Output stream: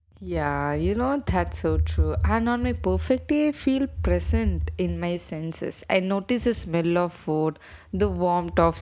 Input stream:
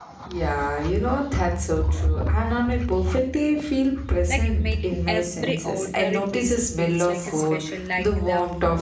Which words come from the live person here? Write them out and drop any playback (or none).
like making every ordinary places feels like a special. Like the